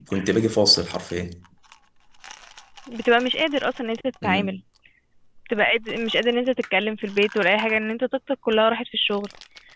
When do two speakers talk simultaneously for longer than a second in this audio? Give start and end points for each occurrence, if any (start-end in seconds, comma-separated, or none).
none